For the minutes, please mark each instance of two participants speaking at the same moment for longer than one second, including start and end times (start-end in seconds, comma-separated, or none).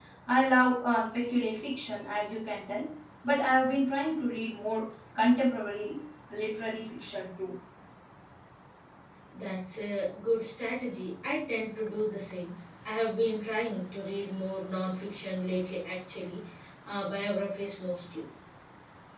none